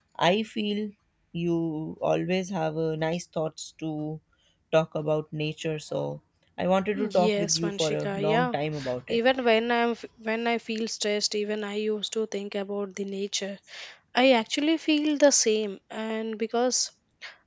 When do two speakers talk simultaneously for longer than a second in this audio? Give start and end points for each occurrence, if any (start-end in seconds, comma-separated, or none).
7.0-8.6